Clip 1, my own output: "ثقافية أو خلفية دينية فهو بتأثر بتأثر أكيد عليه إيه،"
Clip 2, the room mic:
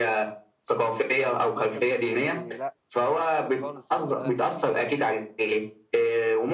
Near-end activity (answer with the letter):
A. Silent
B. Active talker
B